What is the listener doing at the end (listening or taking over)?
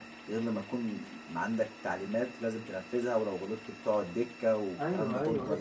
taking over